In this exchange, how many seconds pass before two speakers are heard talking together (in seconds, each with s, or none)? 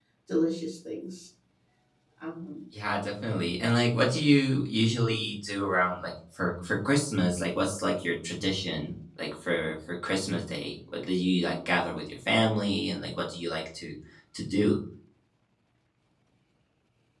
none